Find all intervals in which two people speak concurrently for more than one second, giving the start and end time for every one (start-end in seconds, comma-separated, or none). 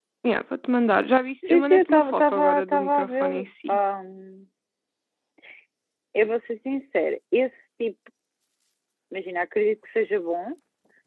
1.5-3.8